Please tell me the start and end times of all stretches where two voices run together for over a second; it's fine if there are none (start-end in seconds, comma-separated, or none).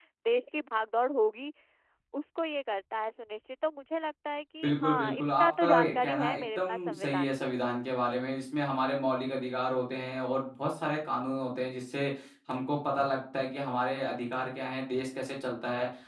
4.6-7.5